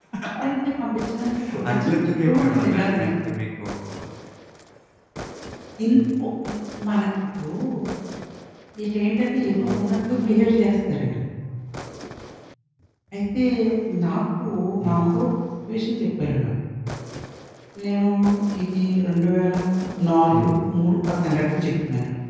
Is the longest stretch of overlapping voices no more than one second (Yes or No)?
No